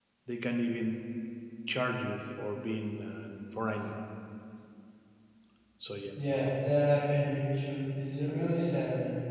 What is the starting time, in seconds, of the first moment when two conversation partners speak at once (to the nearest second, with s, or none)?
none